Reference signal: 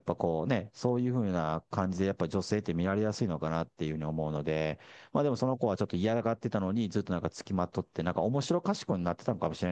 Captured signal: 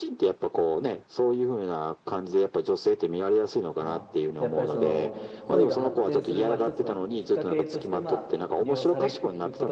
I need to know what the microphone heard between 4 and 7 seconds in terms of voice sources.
both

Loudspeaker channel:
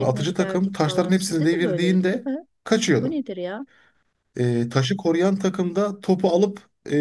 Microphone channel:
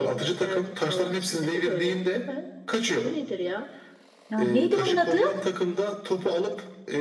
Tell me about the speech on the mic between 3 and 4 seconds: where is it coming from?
echo only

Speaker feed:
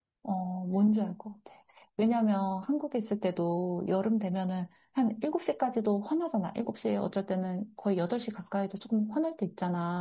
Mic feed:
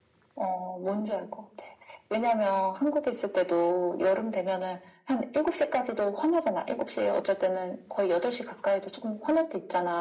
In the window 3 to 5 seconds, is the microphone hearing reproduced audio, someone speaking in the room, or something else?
echo only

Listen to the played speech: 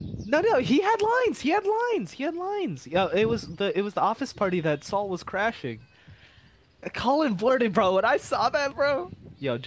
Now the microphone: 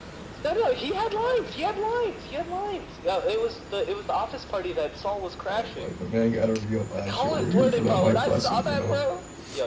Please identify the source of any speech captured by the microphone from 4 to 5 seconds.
echo only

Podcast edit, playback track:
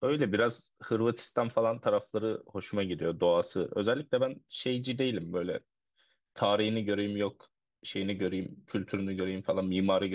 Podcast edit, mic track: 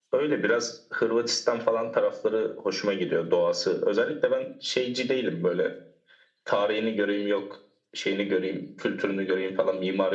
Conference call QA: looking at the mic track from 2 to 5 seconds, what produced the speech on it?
echo only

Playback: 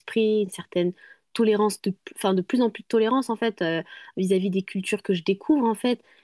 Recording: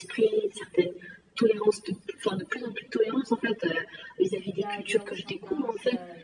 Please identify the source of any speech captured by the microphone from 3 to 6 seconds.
both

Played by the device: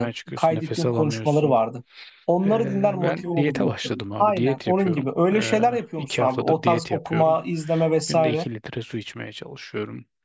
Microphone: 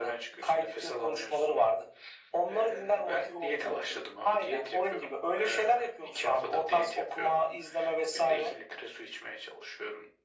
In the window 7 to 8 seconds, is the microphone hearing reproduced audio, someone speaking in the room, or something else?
echo only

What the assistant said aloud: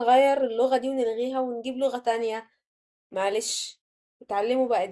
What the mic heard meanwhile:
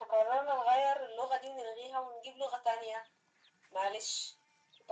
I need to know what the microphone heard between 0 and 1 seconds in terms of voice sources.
echo only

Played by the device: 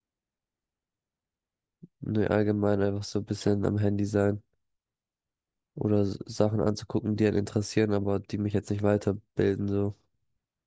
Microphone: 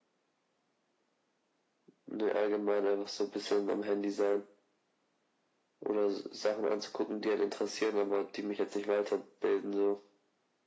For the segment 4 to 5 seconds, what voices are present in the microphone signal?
echo only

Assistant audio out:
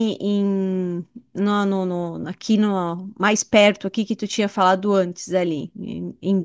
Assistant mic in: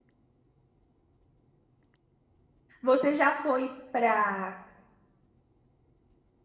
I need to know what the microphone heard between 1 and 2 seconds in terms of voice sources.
neither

